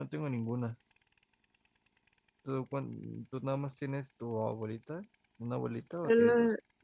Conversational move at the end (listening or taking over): taking over